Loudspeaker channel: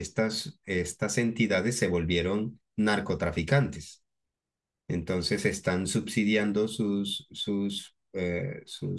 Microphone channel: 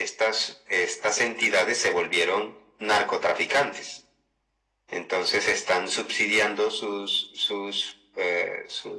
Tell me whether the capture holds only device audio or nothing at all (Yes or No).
Yes